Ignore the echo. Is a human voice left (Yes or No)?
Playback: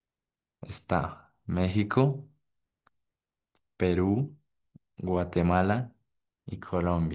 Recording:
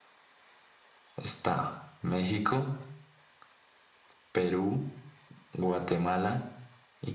No